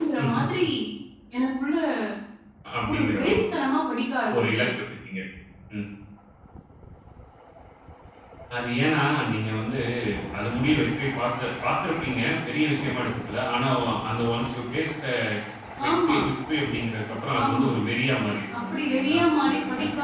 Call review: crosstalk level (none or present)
present